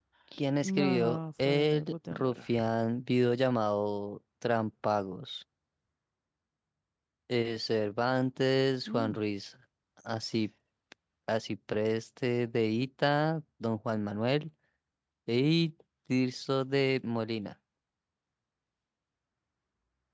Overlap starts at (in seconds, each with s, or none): 0.6 s